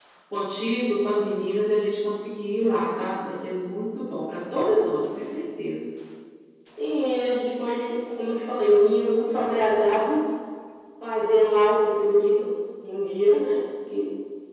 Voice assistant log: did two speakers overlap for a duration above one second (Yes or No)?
No